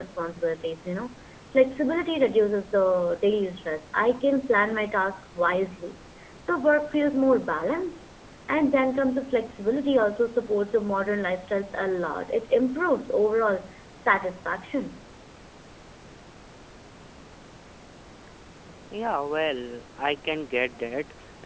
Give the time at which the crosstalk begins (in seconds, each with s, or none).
none